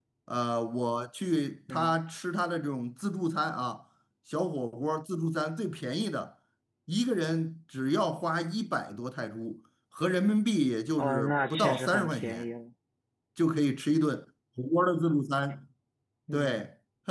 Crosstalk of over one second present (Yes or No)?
Yes